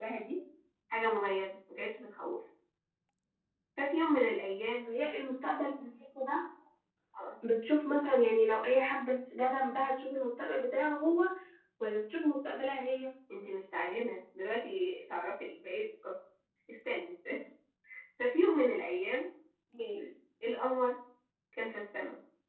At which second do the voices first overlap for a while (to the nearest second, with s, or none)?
none